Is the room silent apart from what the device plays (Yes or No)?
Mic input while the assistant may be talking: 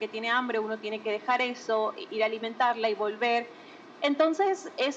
Yes